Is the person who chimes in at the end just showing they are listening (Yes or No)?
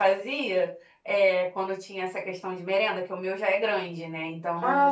Yes